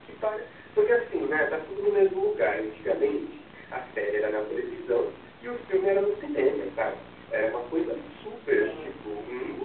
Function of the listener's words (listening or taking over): listening